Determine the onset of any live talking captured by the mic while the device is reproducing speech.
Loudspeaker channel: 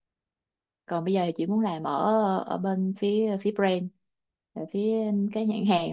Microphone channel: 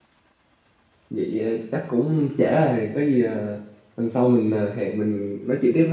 1 s

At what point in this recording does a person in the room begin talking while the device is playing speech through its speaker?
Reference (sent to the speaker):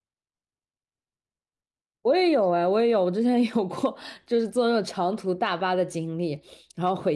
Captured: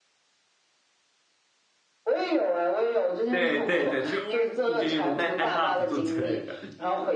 3 s

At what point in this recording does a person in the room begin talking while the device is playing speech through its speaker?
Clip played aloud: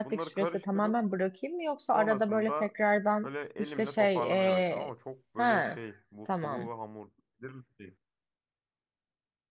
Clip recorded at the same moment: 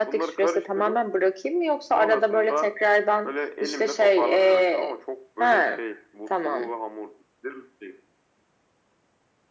none

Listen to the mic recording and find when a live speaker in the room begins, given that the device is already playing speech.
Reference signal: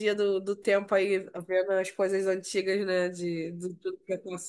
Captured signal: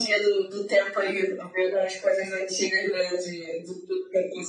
none

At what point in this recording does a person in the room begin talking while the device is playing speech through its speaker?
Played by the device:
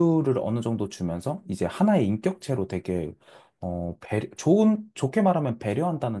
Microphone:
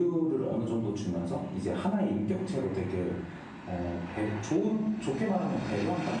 none

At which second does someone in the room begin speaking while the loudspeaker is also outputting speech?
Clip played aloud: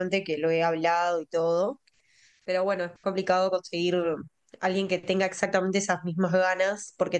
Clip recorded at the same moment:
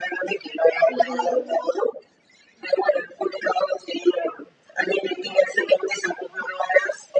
1 s

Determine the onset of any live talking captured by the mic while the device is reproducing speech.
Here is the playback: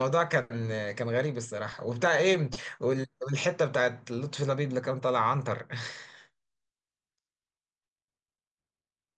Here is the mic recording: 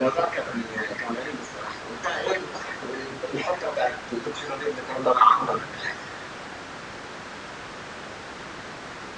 none

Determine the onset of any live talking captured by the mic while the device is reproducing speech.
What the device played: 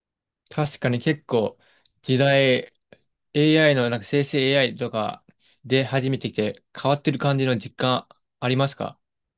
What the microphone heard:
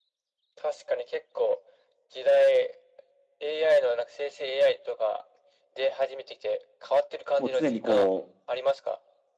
7 s

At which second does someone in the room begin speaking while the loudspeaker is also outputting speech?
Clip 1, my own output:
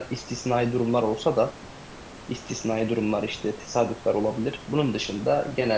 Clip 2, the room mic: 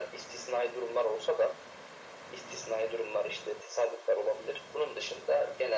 none

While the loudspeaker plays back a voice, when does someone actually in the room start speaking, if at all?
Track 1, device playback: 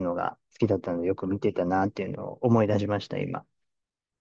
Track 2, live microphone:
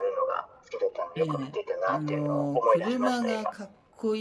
1 s

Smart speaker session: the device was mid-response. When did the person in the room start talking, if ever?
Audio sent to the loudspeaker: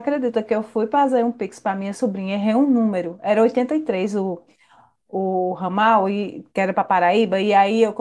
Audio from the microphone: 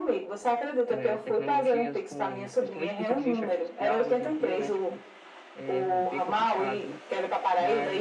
1 s

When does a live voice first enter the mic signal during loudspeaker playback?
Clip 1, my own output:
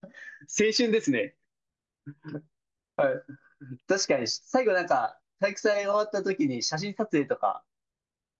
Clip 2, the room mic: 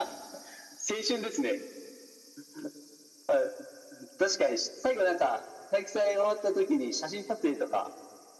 none

